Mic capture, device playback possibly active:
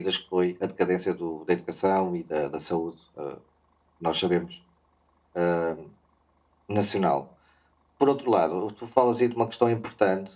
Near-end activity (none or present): none